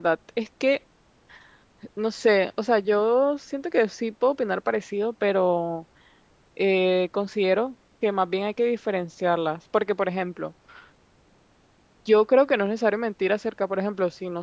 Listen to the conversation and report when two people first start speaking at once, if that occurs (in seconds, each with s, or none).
none